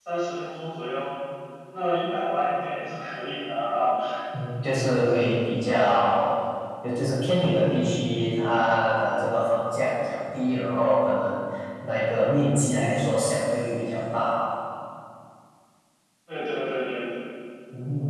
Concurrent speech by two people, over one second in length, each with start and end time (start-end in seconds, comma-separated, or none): none